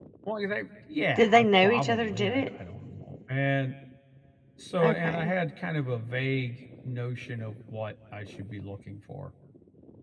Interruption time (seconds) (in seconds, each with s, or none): 1.1 s